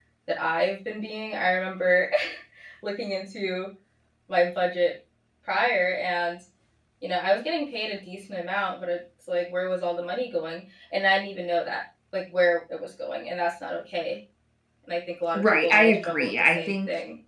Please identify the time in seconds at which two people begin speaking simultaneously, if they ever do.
15.4 s

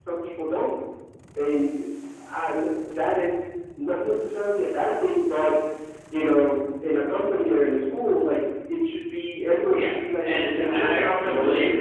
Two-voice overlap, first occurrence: 9.6 s

